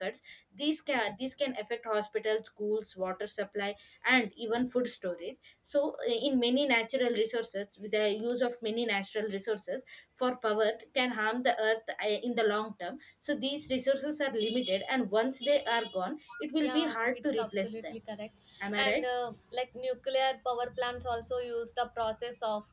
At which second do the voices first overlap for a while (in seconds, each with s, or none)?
16.6 s